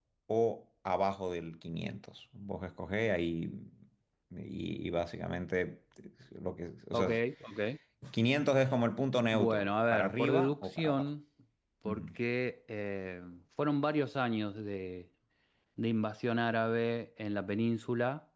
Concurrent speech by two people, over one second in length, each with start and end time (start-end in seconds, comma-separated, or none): 9.3-11.1